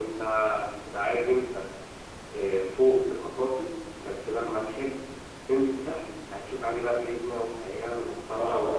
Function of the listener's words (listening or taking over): taking over